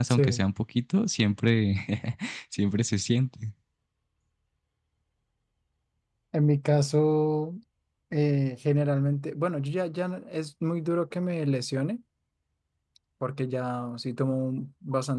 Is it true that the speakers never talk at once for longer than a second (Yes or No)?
Yes